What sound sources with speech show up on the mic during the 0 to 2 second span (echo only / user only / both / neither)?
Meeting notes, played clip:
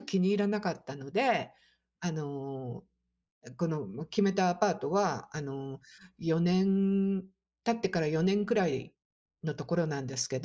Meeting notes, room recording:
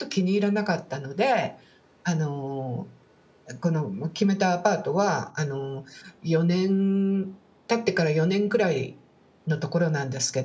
echo only